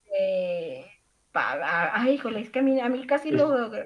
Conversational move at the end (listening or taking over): listening